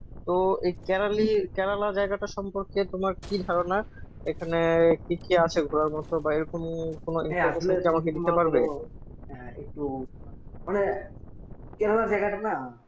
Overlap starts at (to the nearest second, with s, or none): 7 s